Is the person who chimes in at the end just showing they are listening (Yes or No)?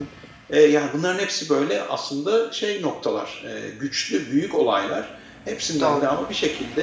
Yes